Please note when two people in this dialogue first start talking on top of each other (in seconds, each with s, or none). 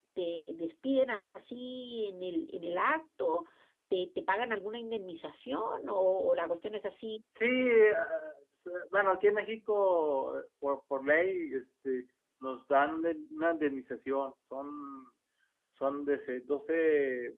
none